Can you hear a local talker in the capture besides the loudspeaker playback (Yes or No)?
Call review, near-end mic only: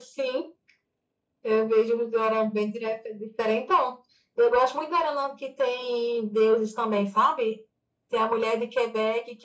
No